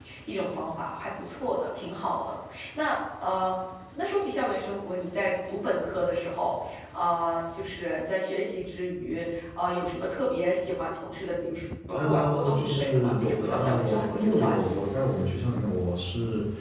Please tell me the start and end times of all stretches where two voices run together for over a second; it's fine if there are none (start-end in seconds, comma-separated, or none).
11.9-14.8